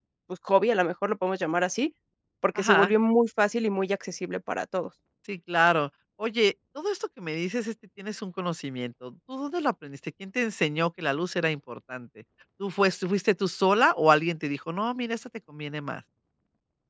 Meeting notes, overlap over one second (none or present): none